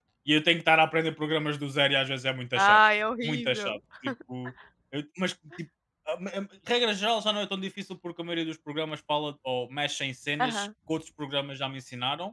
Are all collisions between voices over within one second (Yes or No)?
Yes